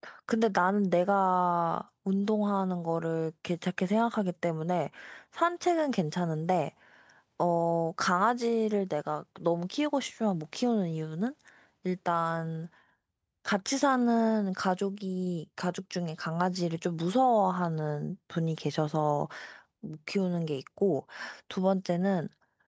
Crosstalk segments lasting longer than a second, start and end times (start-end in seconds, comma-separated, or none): none